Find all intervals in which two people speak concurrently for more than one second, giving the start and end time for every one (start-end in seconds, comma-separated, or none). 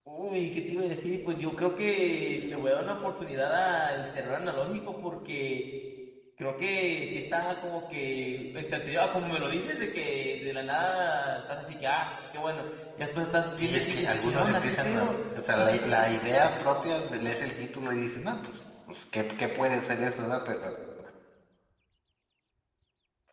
13.6-15.2